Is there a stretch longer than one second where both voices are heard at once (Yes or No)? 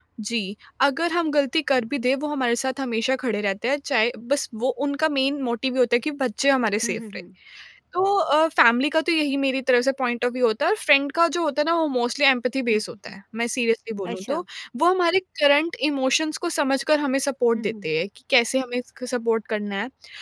No